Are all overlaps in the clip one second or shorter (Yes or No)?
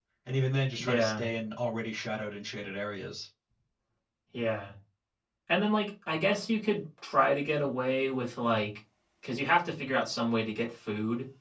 Yes